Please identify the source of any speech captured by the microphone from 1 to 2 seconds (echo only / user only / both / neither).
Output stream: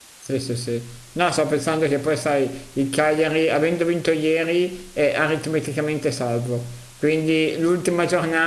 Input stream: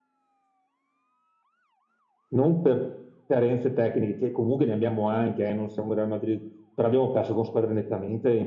neither